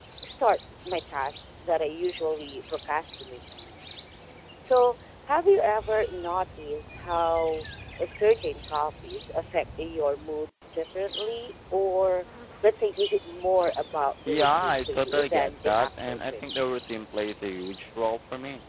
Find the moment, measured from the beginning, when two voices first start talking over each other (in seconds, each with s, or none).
14.3 s